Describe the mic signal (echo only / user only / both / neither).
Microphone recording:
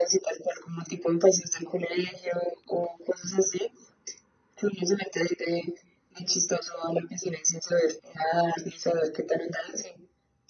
echo only